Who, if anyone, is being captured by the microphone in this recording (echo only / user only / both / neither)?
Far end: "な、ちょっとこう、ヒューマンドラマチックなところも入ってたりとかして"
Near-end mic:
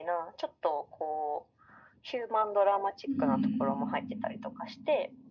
both